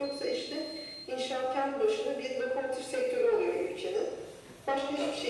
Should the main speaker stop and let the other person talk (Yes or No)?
No